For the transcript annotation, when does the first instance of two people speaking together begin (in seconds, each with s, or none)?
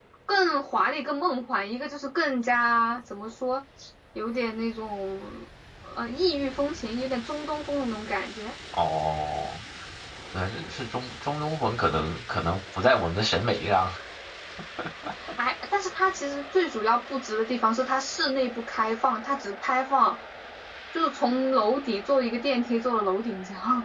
none